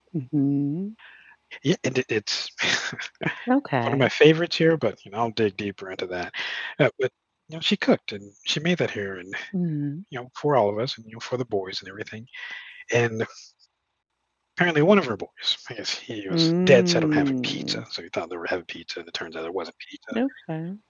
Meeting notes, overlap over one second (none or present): present